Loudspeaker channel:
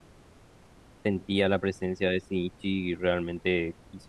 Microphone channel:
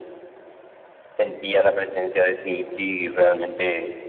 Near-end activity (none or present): none